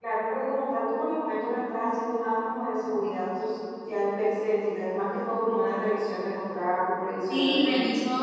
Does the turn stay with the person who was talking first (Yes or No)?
No